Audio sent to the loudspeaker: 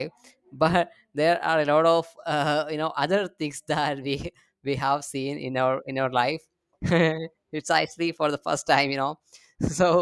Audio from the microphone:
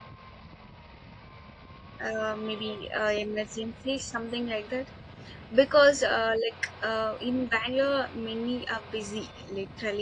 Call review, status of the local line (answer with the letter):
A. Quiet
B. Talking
B